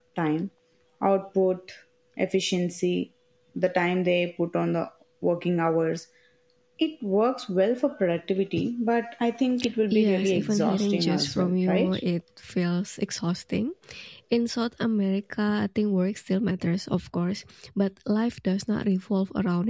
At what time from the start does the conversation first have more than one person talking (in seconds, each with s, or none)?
9.9 s